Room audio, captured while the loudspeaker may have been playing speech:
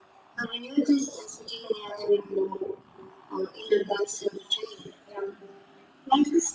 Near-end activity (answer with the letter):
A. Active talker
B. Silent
B